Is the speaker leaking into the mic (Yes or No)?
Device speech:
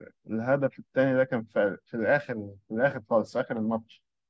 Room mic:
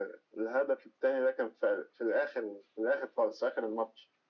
Yes